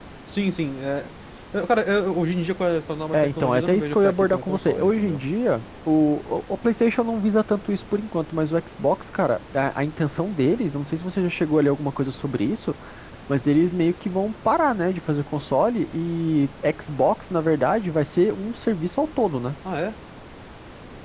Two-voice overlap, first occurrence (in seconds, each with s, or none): 3.1 s